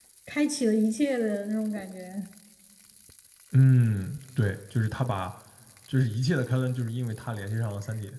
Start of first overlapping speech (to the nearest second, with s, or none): none